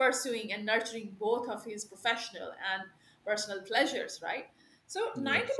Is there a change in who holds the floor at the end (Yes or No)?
No